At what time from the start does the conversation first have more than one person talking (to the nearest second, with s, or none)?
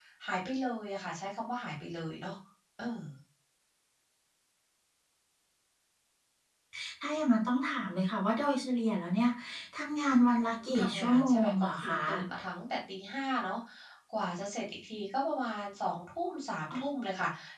10 s